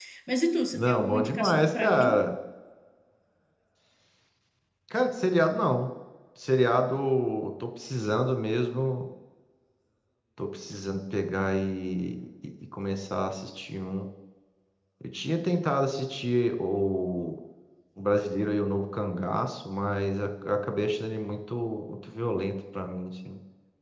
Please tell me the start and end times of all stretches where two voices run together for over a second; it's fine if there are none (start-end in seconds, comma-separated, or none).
0.7-2.2